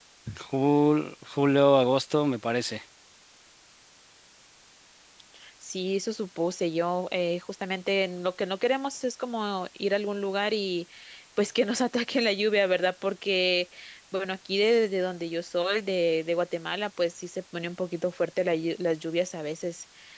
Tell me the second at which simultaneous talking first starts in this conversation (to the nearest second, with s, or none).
none